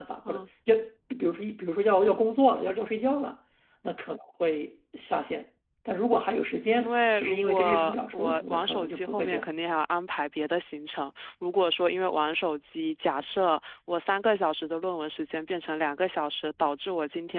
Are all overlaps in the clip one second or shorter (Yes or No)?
No